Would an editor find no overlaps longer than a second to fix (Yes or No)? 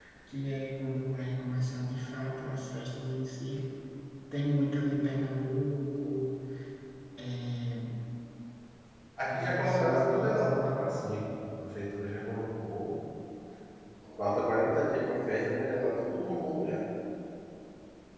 No